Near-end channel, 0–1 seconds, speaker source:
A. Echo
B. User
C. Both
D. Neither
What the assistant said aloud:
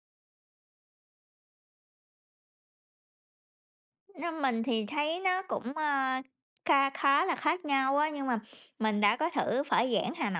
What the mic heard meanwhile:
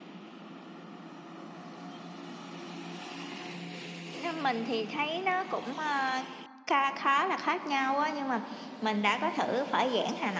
D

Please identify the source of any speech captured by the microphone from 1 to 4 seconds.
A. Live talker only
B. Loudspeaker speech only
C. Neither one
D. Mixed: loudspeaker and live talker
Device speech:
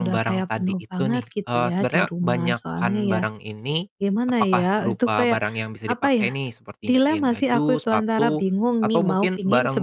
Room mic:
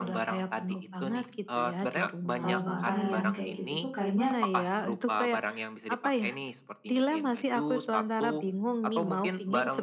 D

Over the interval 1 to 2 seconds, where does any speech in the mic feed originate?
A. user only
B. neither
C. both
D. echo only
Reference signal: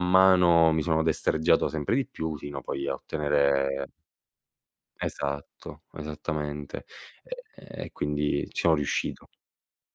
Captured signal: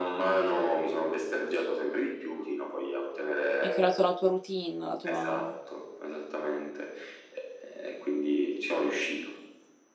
D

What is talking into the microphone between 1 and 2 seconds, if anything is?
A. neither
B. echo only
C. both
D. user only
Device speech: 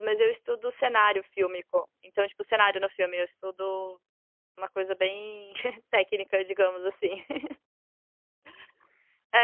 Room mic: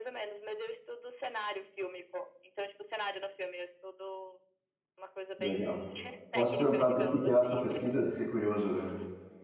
B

